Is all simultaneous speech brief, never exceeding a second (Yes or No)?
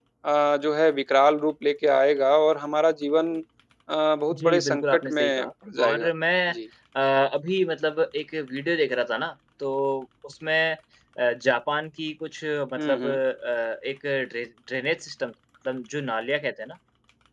No